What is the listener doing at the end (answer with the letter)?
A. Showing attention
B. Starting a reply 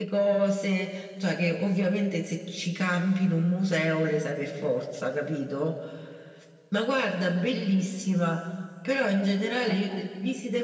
A